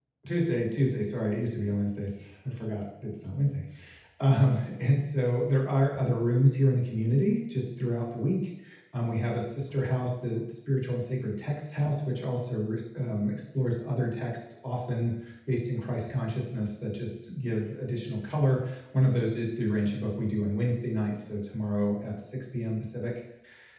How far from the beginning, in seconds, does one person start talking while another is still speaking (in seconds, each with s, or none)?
none